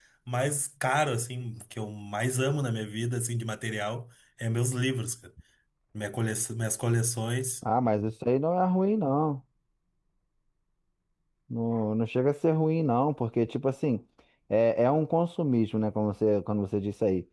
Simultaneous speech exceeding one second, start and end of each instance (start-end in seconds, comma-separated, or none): none